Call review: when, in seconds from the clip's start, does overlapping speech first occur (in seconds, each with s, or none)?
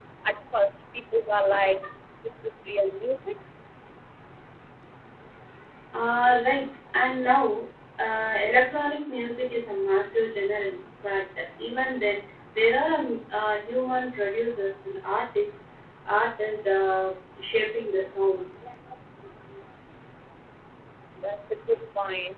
none